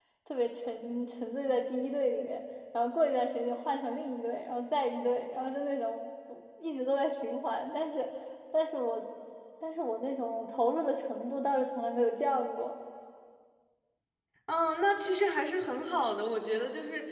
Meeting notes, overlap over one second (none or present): none